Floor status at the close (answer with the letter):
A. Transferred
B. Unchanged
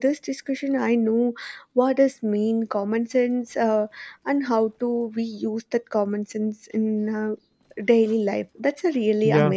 A